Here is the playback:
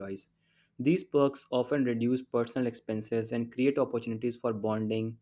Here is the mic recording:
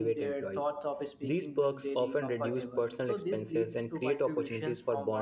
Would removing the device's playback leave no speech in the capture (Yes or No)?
No